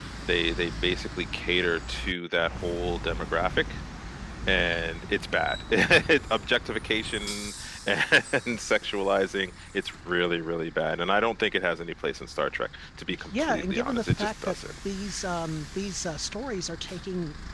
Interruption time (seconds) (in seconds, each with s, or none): 13.1 s